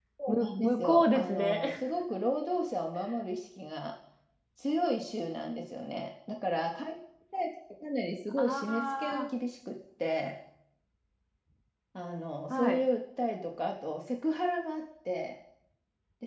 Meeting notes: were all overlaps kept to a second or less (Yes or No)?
No